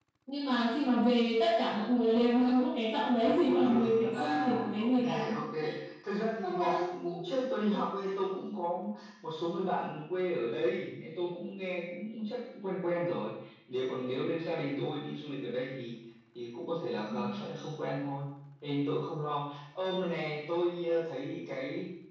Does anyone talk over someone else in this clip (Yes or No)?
Yes